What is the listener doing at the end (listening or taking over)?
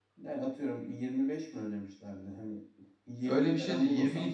taking over